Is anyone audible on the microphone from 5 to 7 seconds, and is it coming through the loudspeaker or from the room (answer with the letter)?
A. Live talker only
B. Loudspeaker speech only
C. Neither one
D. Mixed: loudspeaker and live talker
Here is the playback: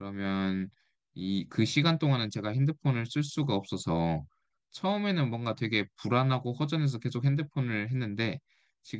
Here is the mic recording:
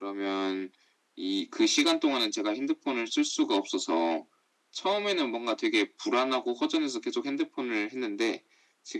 B